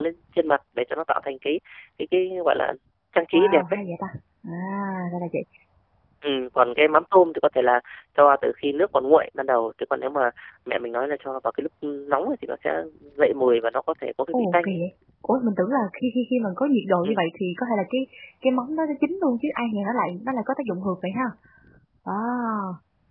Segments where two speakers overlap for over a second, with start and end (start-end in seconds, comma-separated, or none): none